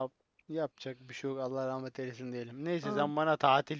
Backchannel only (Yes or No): Yes